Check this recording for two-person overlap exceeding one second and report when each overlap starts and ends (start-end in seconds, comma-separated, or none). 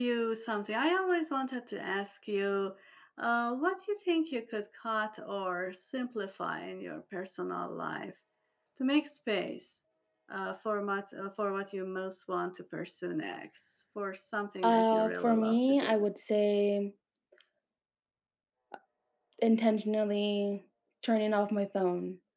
14.6-16.1